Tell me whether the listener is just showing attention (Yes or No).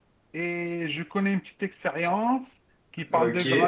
Yes